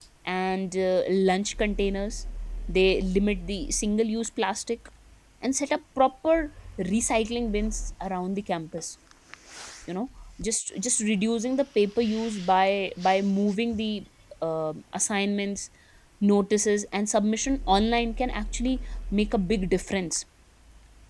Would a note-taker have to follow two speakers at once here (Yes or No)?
No